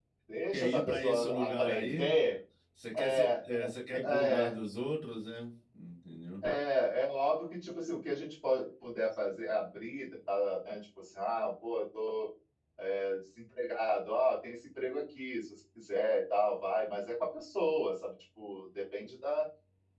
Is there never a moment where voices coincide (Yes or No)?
No